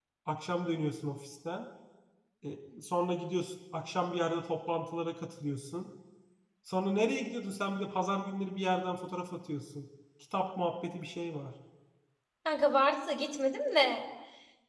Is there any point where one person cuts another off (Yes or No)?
No